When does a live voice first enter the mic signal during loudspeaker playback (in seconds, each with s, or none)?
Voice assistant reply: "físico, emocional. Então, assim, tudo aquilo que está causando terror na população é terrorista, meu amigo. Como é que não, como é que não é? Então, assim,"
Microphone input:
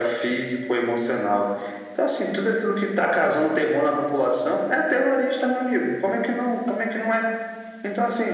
none